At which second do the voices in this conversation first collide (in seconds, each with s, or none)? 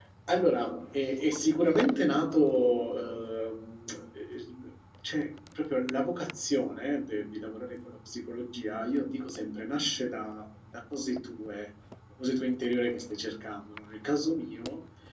none